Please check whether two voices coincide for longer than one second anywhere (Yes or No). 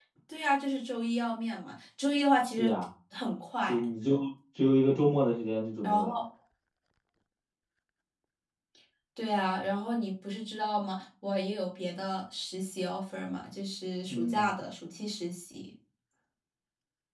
No